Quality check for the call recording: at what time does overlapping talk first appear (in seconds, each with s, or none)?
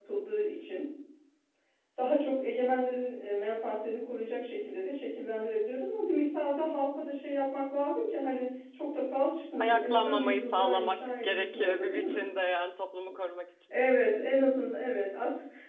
9.6 s